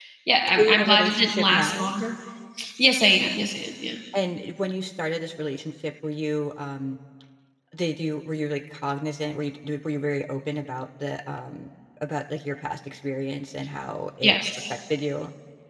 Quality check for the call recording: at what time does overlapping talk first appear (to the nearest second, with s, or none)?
1 s